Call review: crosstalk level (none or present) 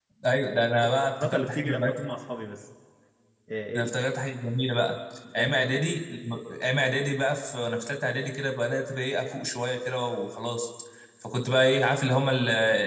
present